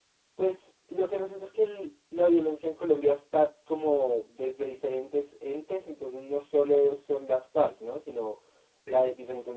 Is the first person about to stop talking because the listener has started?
No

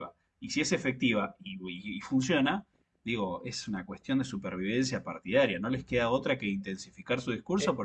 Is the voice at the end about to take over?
Yes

